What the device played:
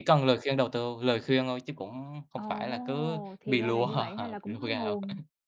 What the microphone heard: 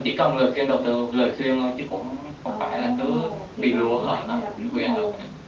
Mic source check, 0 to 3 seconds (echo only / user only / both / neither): echo only